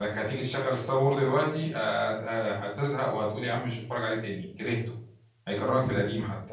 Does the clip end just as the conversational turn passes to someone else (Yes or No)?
Yes